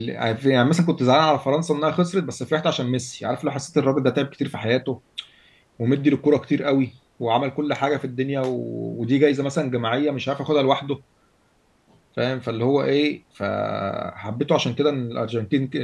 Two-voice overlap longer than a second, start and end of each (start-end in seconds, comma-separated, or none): none